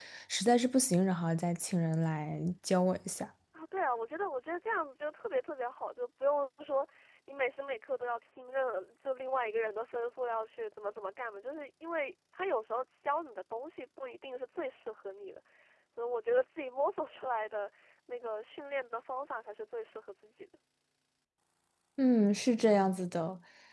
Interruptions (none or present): none